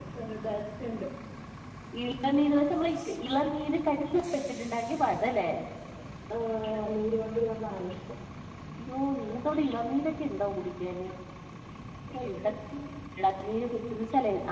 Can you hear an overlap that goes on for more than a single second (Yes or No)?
No